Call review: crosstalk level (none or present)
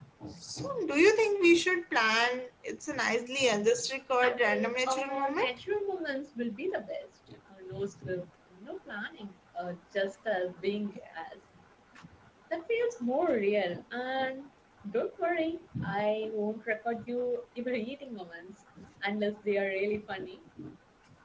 present